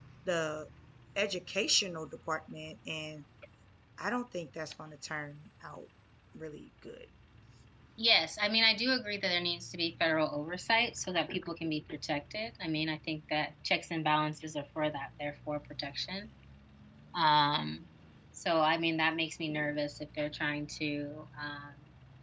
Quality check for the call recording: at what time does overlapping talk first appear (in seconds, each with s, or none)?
none